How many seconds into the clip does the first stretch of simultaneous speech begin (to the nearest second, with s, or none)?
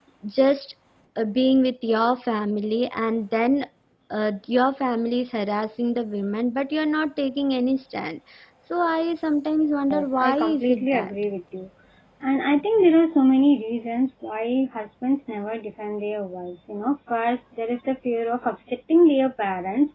10 s